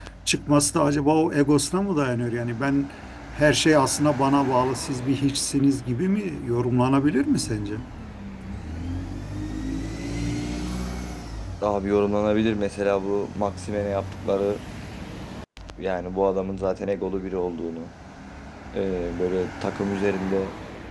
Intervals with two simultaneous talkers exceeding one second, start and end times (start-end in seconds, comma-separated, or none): none